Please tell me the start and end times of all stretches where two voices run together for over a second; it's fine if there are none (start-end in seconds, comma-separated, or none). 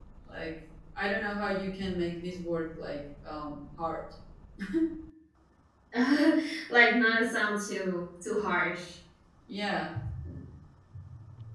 none